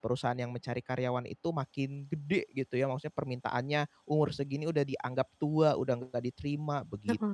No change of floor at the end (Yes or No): No